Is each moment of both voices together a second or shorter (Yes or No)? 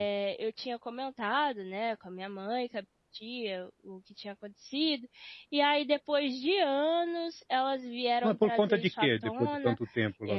No